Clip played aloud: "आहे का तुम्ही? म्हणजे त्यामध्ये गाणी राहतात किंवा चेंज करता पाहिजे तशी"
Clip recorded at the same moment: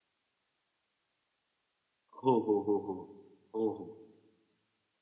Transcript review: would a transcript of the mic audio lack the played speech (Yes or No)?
Yes